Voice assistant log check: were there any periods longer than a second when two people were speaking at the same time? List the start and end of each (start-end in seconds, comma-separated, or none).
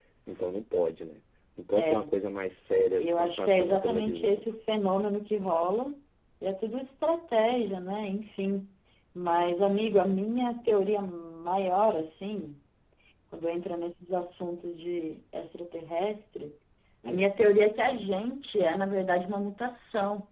2.9-4.4